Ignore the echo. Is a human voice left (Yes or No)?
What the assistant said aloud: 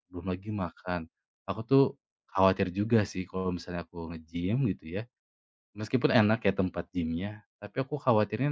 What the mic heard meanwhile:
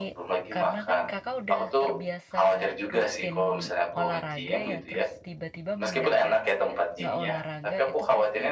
Yes